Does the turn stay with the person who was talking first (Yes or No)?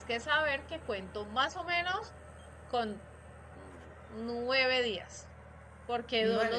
Yes